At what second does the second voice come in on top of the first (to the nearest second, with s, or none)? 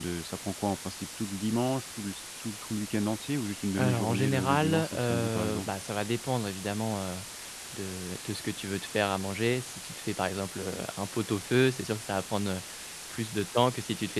4 s